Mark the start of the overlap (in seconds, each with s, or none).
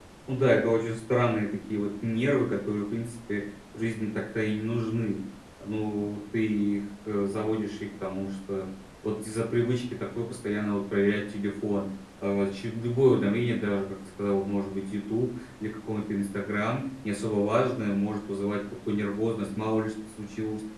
none